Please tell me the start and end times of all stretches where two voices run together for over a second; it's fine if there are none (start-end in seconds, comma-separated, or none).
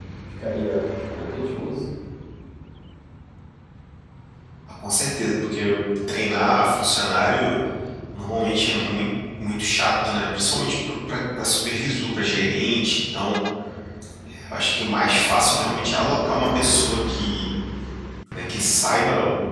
none